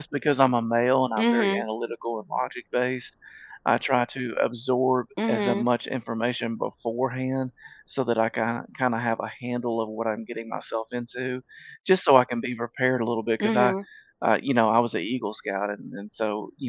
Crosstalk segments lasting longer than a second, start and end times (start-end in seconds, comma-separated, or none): none